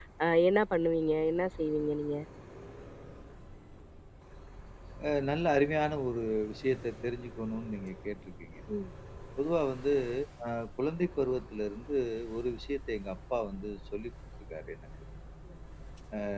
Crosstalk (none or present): none